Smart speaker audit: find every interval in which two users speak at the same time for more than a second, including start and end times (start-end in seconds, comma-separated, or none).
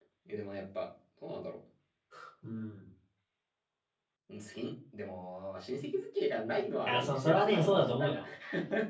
6.8-8.2